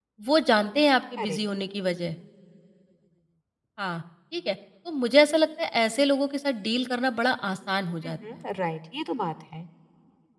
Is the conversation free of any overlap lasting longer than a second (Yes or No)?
Yes